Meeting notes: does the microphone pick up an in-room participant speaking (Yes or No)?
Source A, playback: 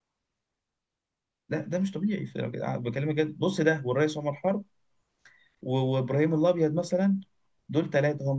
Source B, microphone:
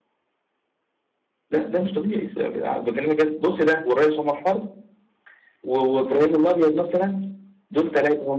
No